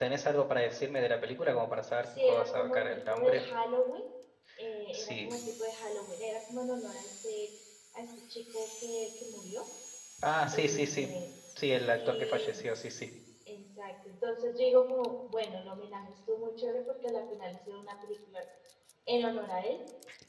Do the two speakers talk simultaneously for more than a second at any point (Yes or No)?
Yes